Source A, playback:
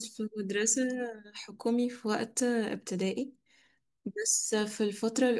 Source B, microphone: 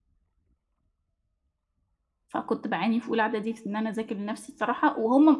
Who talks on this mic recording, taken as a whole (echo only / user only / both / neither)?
user only